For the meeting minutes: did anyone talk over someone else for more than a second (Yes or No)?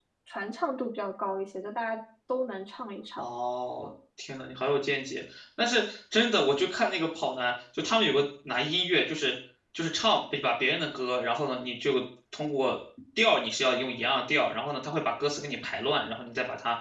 No